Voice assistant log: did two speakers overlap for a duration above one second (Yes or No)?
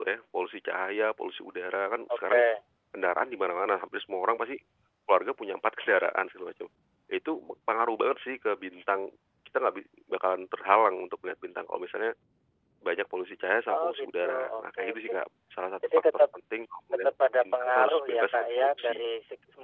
Yes